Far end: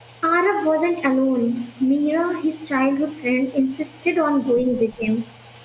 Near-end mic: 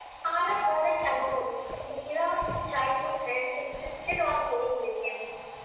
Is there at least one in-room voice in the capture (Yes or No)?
No